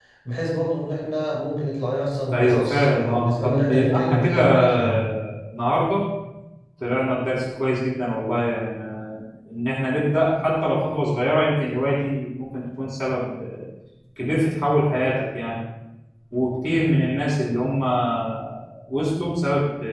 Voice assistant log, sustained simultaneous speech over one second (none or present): present